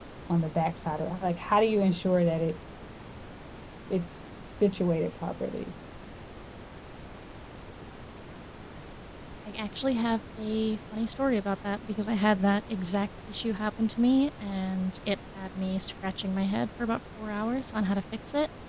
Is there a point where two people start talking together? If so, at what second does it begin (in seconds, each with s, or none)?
none